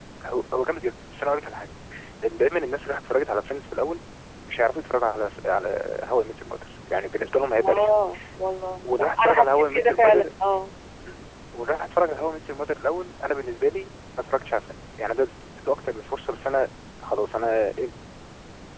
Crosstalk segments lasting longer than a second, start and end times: 8.8-10.3

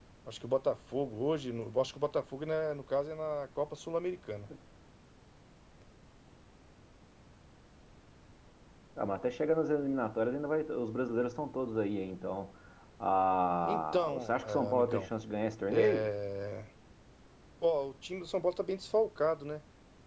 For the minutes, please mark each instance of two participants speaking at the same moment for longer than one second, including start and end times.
13.6-15.1

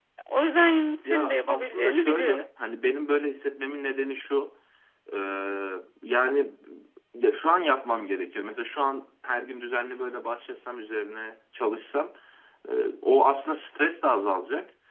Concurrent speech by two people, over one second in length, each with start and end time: 1.1-2.4

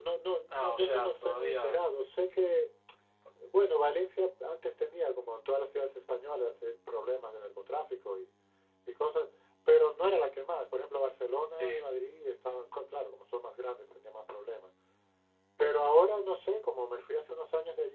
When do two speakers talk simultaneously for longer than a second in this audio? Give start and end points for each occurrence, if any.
0.5-1.8

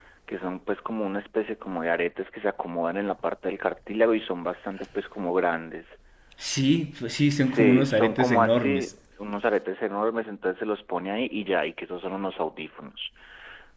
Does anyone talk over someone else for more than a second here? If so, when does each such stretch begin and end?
7.5-8.9

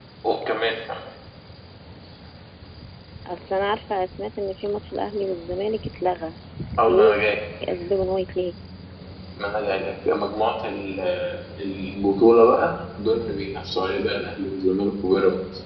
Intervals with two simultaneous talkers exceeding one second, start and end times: none

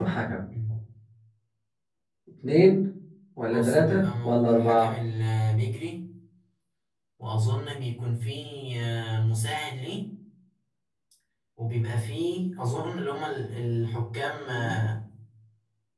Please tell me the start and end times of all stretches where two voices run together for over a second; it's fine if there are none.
3.5-4.9

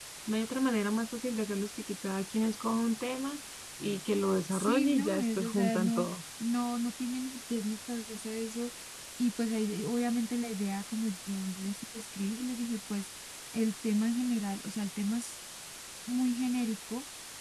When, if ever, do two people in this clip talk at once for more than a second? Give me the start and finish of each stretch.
4.5-6.1

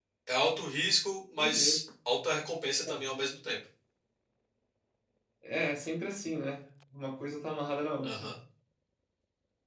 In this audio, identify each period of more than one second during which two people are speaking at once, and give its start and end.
none

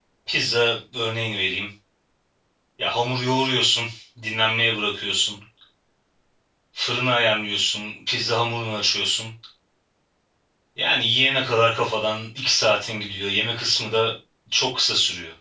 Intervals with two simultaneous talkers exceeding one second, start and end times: none

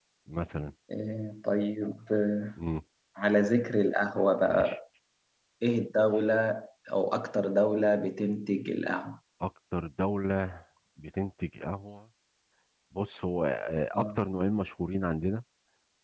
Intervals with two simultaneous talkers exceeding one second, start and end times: none

